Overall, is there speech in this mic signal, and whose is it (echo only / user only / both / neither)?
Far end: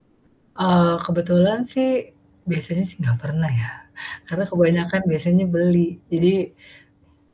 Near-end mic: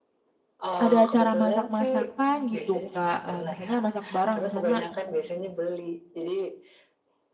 both